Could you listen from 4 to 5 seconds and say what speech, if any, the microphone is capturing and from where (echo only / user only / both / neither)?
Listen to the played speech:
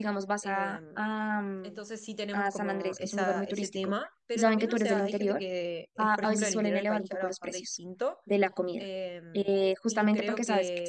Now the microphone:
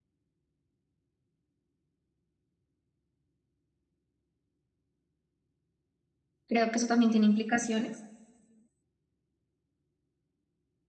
neither